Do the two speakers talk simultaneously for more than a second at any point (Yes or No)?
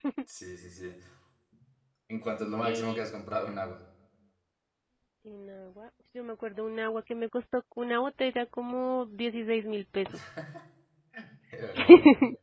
No